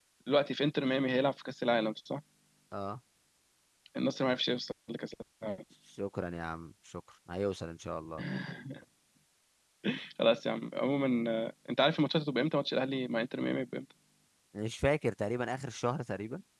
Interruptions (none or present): none